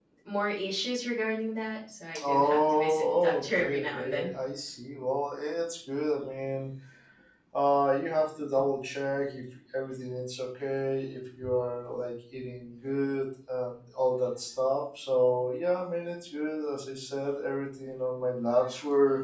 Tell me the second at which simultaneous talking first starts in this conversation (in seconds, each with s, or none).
2.1 s